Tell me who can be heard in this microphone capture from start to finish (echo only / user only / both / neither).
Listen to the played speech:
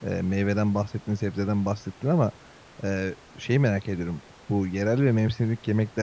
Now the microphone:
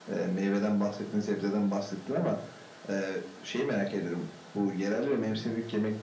echo only